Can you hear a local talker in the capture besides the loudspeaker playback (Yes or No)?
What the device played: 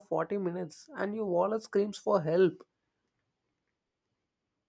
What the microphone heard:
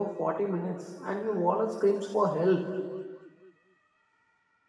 No